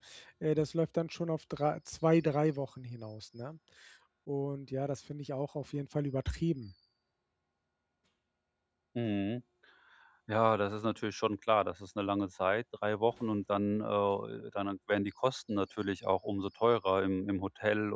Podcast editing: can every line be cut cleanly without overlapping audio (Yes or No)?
Yes